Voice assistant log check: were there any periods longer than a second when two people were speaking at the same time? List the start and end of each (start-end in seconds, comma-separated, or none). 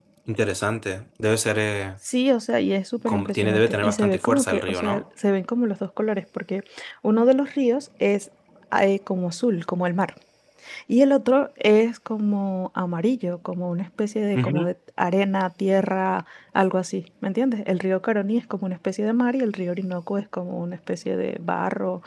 3.1-5.0